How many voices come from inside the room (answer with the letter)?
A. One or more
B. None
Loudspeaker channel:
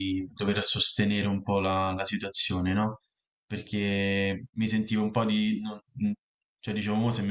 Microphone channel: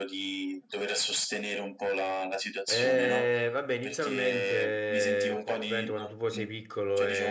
A